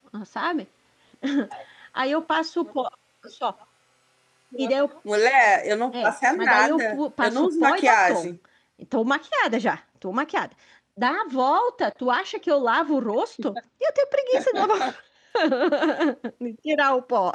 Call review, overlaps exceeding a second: present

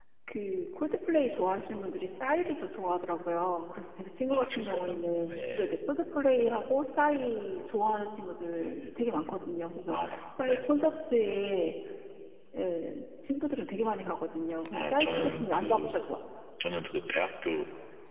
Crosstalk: present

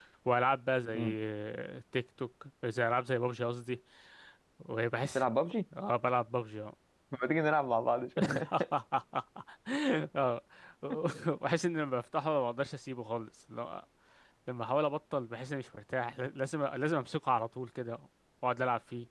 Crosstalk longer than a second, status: none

